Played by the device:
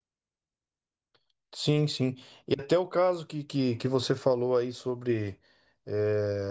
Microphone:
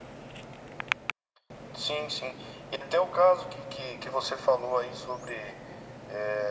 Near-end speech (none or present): none